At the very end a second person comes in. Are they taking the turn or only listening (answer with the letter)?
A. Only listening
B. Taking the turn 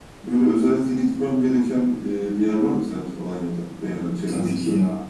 B